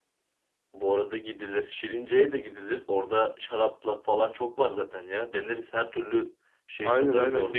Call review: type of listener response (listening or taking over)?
taking over